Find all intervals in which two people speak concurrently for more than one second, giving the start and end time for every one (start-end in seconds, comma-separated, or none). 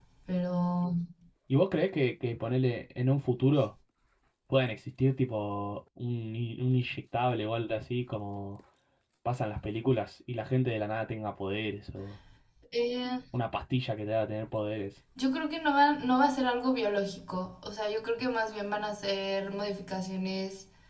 none